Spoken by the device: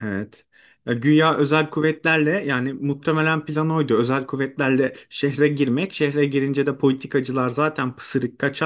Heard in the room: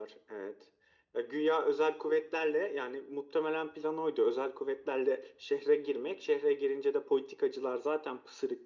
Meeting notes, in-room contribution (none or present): none